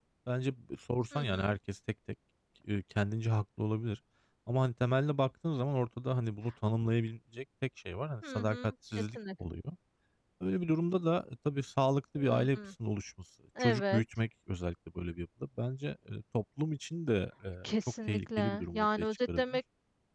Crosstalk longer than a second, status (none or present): present